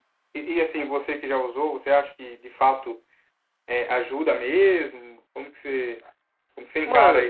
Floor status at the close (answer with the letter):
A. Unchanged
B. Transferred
B